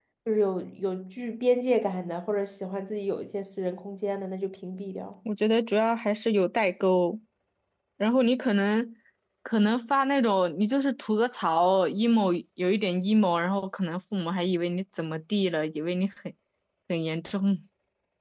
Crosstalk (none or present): none